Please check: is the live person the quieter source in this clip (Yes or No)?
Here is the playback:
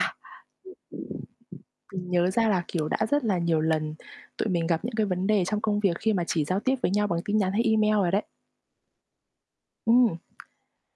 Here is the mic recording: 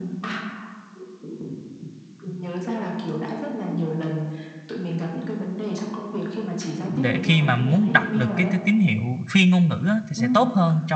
No